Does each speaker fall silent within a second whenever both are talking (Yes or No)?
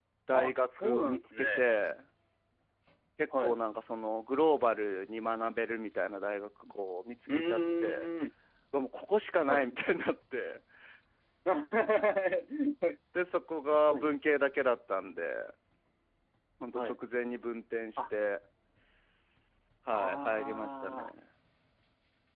No